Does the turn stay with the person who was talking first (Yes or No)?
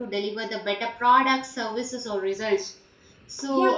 No